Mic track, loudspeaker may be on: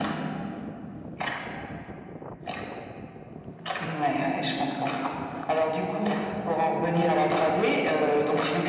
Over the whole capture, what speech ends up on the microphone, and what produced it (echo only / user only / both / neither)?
echo only